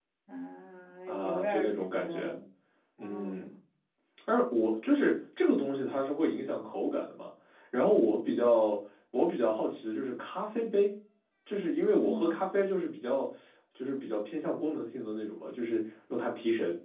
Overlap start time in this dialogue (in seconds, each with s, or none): 1.1 s